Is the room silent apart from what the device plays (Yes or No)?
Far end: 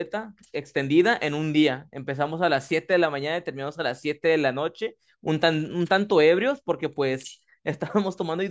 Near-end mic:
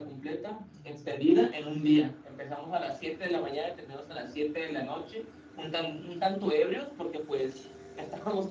Yes